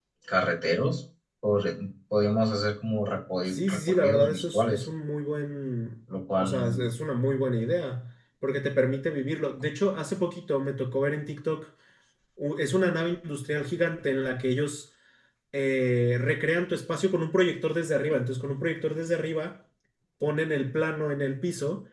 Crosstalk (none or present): present